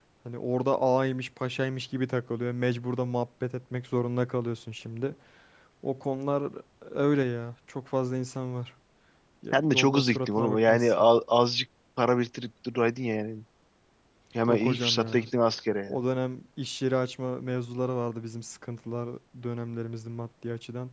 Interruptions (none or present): present